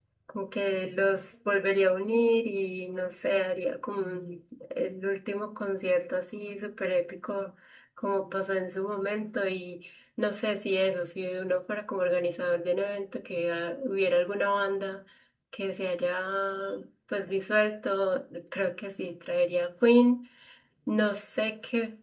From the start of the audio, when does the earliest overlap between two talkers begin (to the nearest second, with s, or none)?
none